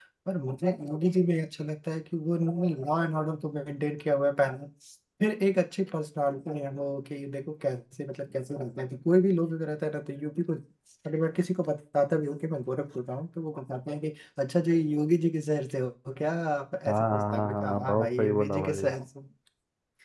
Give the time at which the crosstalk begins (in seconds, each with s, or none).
16.9 s